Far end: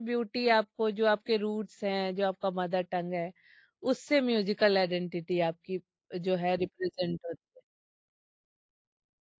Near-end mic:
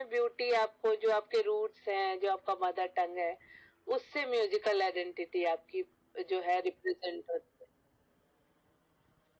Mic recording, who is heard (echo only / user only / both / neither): echo only